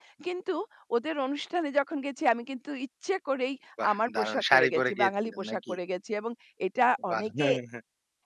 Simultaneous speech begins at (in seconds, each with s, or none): 3.9 s